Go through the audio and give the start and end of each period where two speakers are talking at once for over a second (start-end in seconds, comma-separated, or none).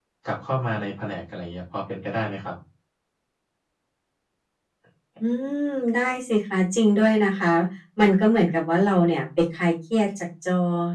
none